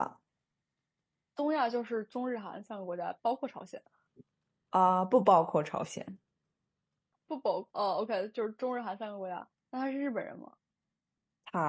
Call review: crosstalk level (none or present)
none